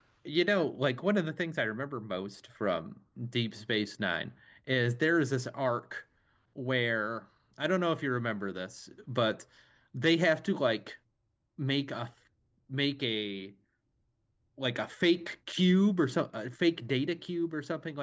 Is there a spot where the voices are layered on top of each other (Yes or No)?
No